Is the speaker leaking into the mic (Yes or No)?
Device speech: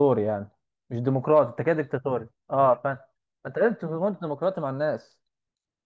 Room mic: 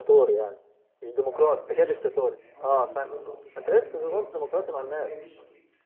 Yes